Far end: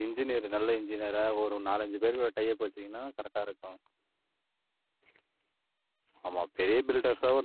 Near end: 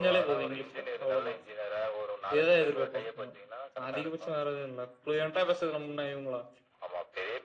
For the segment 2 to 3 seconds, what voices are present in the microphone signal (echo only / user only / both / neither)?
both